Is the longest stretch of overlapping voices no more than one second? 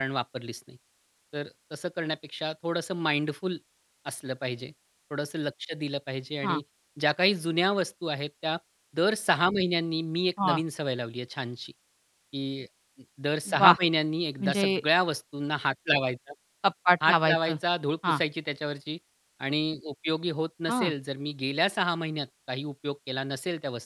Yes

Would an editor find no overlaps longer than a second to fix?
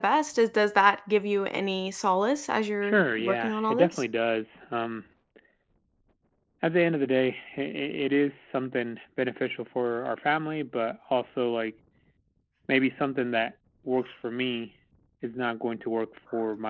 No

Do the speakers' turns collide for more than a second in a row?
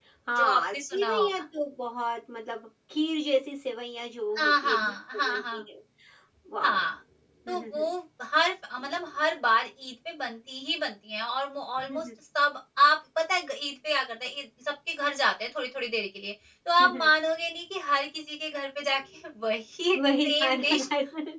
Yes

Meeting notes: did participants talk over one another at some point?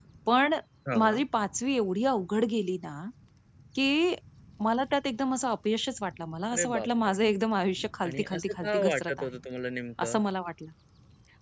Yes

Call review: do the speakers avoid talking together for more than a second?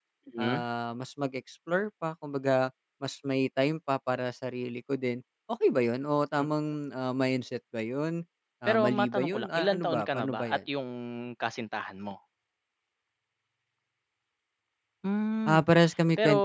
No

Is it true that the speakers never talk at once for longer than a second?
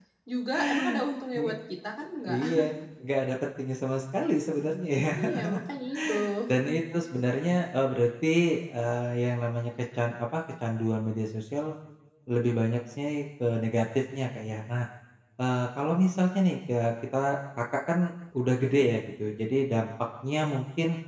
Yes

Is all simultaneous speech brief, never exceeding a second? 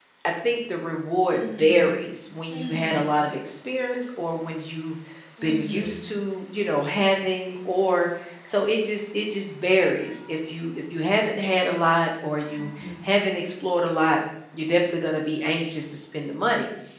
Yes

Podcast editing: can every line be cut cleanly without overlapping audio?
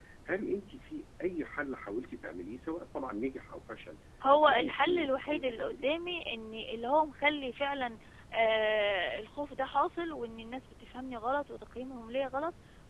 No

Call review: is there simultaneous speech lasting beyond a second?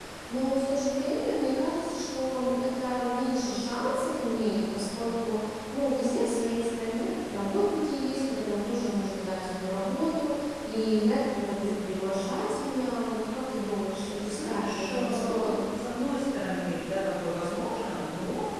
Yes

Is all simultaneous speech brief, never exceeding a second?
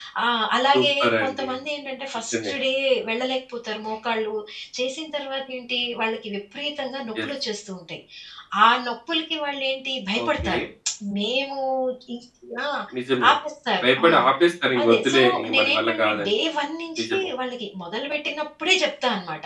No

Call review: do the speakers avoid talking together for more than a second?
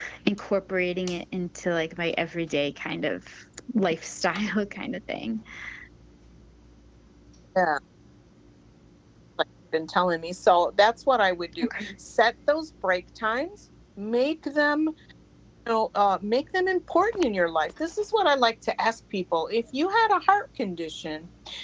Yes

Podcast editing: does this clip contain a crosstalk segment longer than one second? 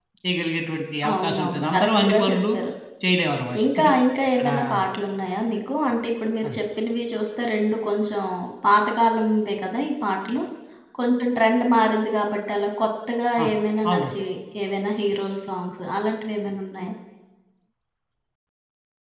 Yes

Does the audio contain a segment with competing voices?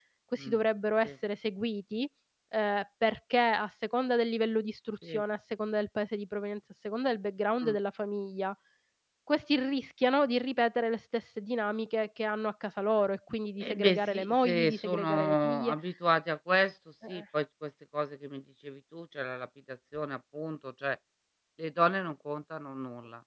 Yes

